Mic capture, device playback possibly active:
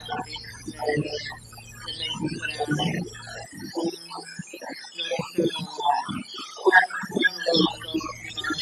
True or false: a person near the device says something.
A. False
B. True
A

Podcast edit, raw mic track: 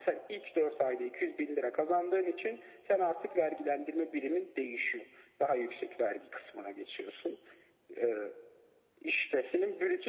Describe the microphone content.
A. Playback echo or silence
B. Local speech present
A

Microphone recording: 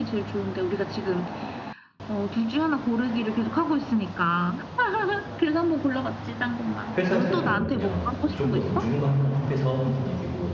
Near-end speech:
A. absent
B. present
B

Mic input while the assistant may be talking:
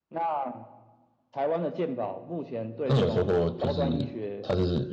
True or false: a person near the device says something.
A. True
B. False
A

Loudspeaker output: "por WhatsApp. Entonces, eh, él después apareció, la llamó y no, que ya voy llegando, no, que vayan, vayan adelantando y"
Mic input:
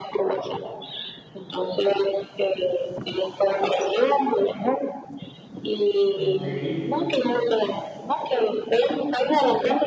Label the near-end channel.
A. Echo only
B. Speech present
B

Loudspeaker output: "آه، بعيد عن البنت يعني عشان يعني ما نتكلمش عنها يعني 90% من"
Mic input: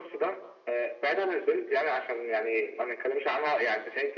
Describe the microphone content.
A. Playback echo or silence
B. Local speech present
A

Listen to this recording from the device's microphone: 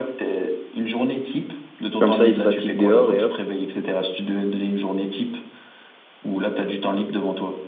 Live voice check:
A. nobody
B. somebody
B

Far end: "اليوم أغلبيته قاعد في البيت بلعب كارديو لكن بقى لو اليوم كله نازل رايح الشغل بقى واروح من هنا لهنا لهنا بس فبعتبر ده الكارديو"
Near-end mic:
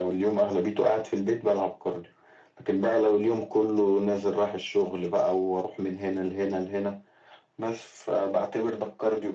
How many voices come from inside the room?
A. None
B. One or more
A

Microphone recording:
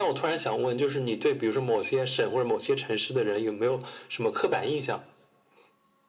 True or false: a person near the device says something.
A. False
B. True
A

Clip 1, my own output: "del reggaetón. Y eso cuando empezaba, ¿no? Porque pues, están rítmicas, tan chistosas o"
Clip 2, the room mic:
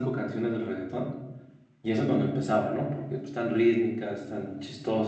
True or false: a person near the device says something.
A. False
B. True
A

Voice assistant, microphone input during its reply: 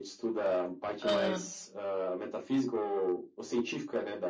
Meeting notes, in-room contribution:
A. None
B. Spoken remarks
B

